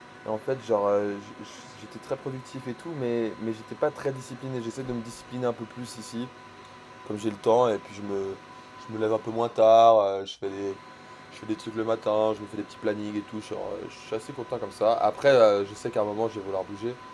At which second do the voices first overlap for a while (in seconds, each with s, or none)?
none